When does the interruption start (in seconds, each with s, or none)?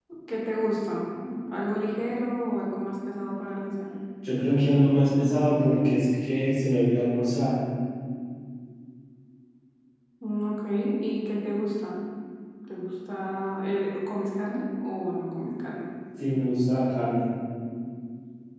none